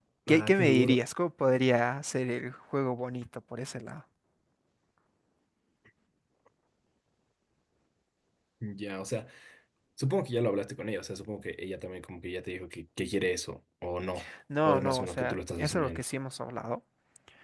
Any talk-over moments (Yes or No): Yes